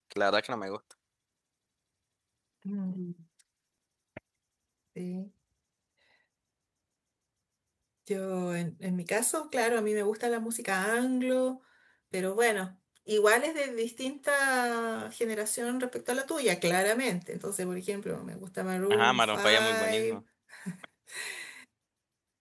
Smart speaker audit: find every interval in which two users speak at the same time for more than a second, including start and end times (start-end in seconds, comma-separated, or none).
18.9-20.2